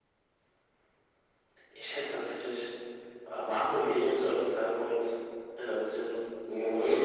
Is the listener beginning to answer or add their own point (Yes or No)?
Yes